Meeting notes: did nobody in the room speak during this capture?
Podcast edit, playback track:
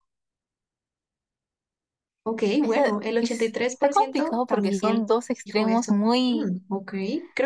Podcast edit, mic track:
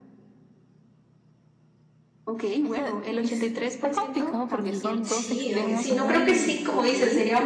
No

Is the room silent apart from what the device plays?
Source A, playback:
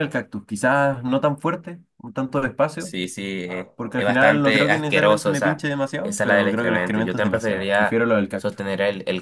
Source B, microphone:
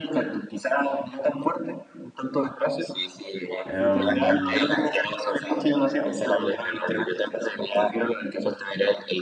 No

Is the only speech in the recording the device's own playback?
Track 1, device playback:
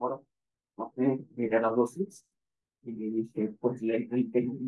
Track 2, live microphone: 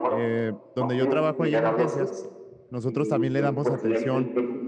No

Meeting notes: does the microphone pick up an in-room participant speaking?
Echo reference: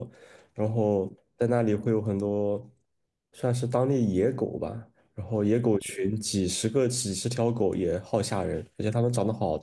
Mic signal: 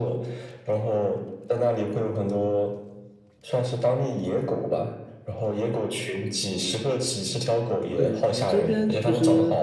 Yes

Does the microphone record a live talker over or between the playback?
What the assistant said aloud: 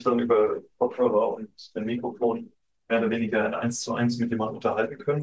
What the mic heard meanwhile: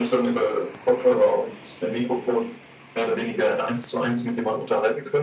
No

